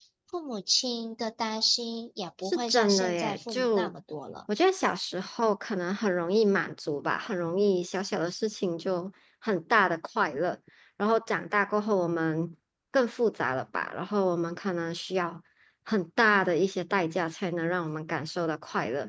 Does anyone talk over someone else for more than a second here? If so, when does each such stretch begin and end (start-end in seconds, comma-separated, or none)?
2.4-3.9